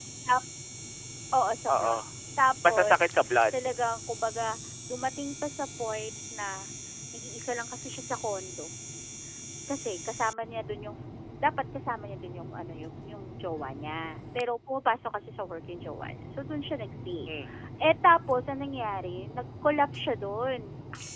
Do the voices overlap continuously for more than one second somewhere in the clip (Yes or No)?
No